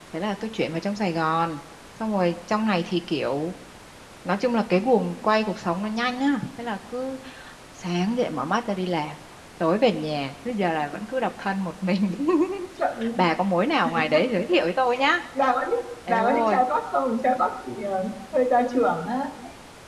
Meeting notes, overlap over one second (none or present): none